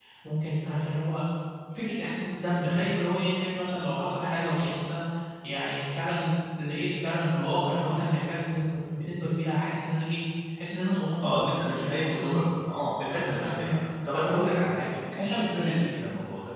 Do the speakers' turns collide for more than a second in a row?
Yes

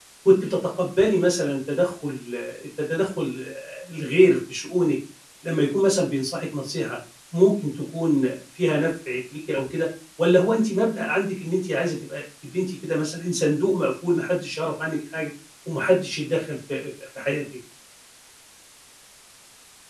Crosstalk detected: No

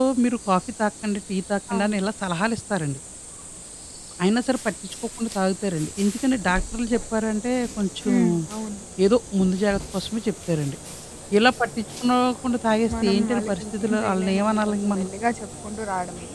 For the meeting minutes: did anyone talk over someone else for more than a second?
Yes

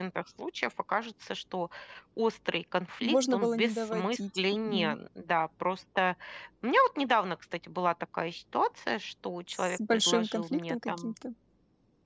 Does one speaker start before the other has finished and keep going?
Yes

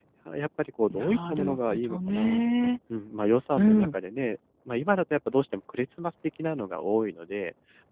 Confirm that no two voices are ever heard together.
No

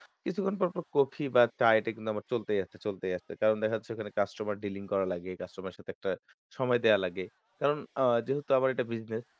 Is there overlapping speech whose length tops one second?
No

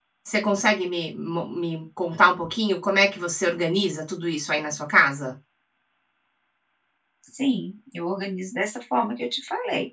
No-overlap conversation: Yes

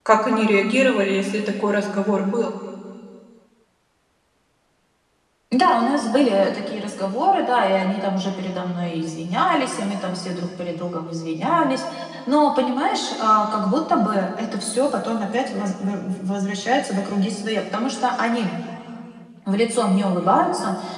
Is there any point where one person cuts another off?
No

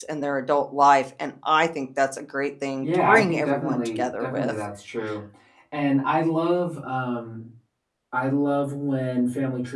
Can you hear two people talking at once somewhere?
Yes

